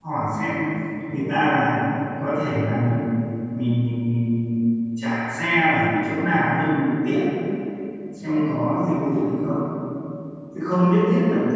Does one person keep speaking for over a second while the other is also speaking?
No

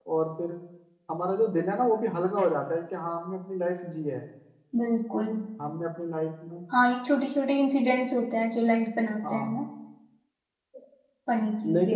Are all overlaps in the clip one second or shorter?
Yes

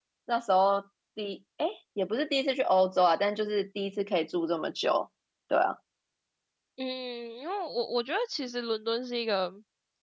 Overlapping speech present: No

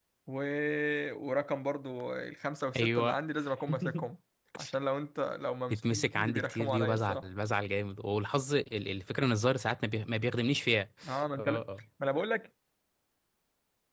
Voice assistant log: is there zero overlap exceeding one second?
No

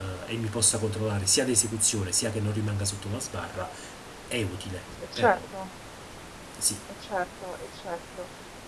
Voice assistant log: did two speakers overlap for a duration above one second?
No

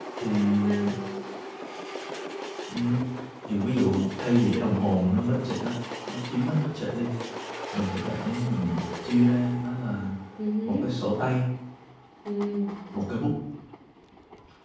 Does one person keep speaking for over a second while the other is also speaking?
No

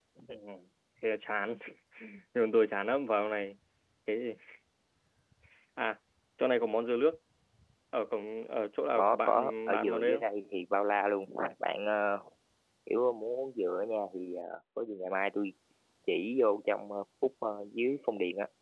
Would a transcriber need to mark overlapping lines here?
Yes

